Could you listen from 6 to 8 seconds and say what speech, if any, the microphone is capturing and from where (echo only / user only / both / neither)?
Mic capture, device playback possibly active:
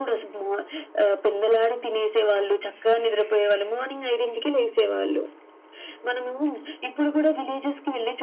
echo only